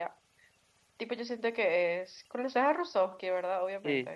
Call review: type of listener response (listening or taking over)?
taking over